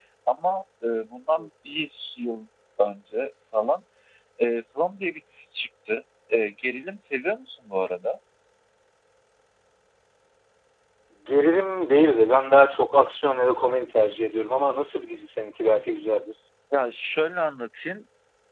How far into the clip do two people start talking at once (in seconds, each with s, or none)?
none